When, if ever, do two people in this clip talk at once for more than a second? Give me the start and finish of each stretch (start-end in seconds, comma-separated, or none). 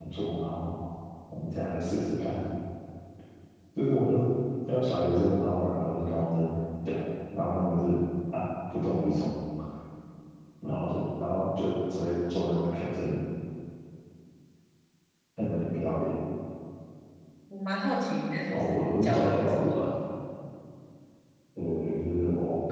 18.5-19.8